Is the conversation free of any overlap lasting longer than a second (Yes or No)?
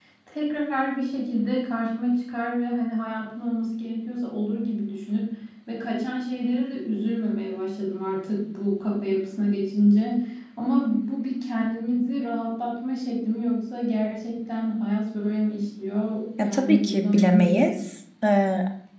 No